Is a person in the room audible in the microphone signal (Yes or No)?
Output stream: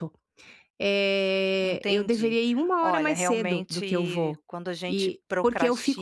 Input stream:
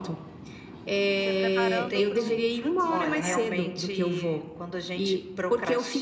Yes